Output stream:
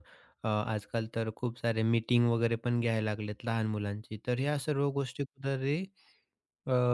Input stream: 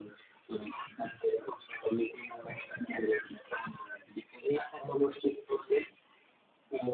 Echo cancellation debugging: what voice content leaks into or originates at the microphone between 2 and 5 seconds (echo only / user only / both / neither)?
echo only